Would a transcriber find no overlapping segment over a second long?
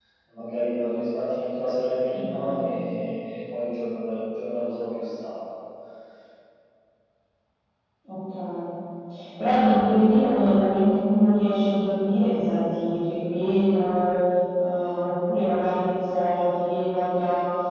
Yes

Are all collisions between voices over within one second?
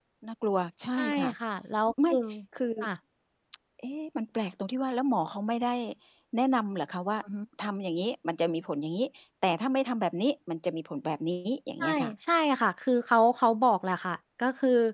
Yes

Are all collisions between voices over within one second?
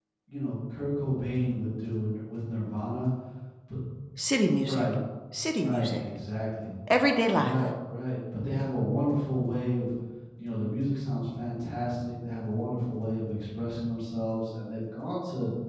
Yes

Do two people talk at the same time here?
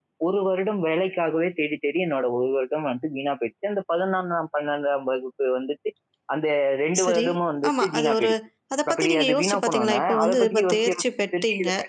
Yes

